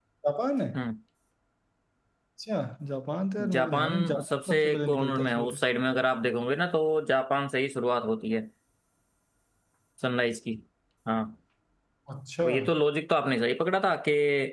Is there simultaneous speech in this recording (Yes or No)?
Yes